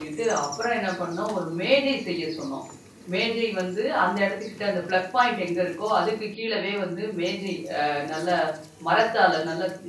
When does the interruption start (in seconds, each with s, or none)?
none